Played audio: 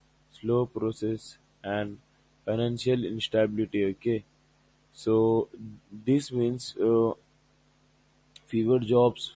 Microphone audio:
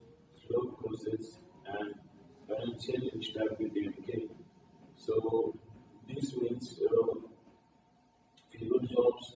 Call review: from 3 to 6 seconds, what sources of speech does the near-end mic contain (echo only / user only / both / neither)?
echo only